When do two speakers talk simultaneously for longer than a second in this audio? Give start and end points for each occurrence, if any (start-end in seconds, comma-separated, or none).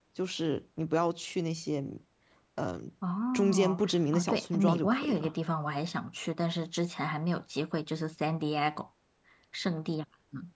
3.3-5.3